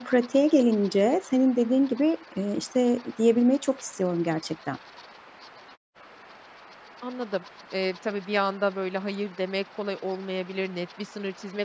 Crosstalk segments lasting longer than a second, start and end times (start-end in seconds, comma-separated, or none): none